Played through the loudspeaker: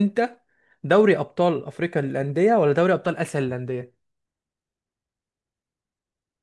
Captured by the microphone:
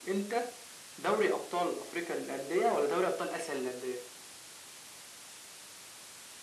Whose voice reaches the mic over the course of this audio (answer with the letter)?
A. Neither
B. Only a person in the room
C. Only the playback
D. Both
C